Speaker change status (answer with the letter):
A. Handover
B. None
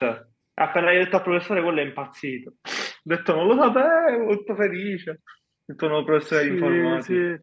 A